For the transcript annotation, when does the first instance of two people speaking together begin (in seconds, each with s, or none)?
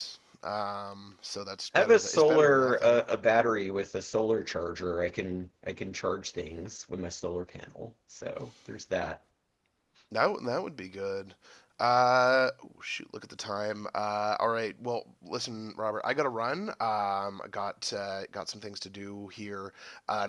1.7 s